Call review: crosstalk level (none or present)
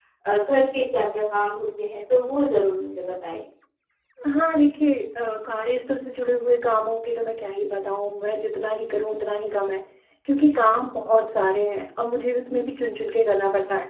none